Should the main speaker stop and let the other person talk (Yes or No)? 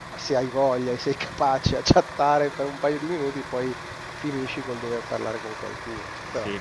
Yes